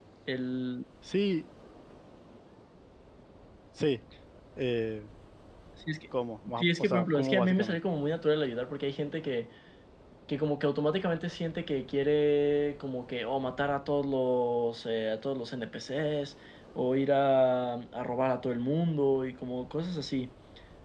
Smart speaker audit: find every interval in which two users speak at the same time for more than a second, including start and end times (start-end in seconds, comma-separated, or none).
6.6-7.8